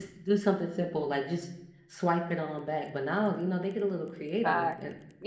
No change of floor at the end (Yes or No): No